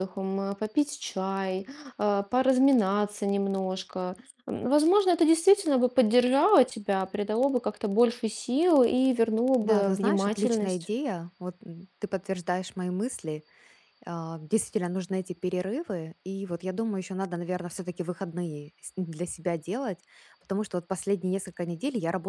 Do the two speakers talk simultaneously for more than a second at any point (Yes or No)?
Yes